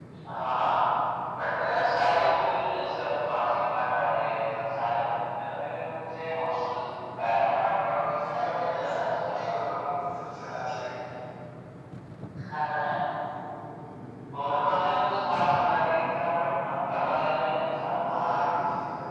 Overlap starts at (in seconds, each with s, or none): 8.1 s